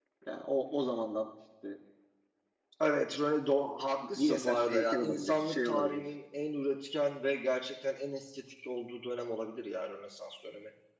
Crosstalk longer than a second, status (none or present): present